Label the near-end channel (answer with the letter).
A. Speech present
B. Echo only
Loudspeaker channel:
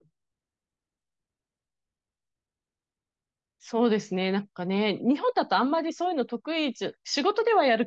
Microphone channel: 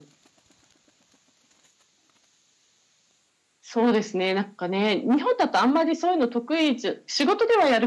B